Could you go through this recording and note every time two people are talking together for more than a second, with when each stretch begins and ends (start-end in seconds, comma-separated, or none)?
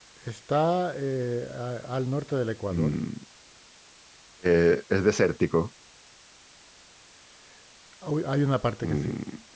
none